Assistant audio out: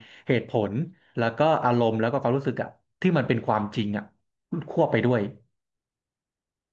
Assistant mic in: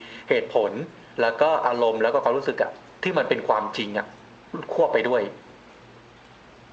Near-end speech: none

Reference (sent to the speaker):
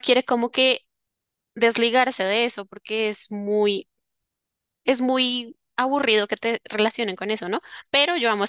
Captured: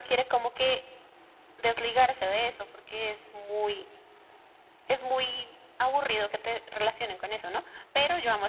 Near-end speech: none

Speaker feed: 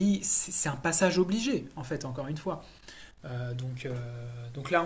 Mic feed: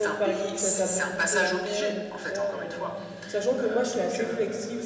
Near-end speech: present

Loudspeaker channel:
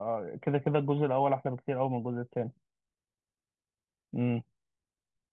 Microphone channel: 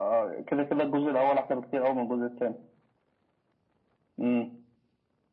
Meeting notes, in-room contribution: none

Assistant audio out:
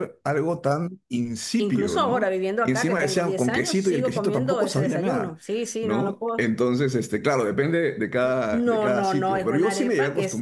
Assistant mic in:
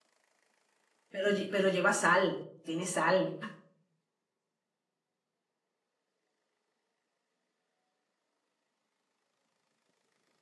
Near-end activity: present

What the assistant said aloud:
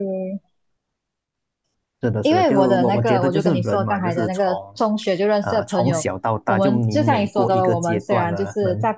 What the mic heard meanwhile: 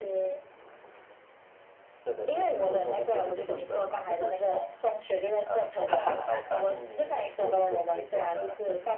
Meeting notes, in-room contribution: present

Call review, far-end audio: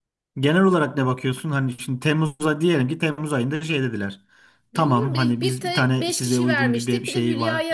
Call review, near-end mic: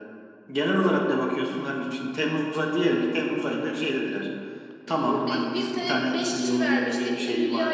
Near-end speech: none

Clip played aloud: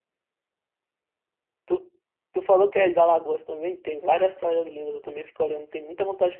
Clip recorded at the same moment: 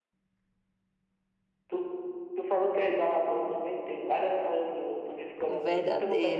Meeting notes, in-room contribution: present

